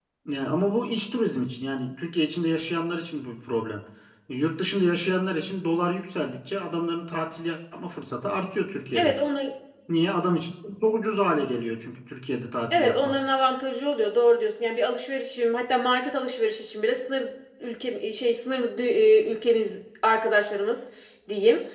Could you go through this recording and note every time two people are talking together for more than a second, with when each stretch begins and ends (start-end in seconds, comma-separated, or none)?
none